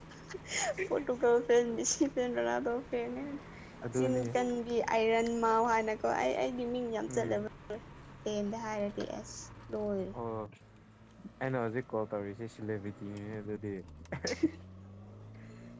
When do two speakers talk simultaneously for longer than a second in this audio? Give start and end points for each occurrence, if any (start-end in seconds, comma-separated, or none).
none